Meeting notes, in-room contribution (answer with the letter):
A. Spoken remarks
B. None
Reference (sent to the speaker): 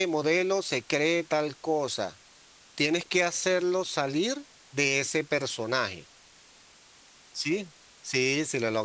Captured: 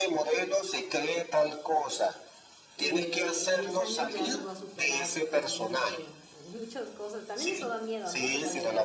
A